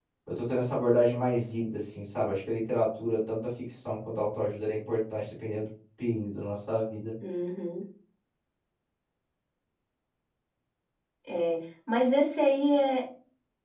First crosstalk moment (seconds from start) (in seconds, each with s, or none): none